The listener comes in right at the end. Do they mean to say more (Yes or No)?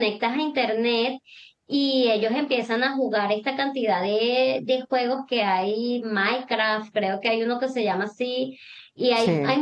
No